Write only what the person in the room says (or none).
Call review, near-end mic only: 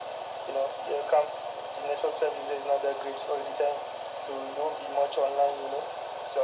none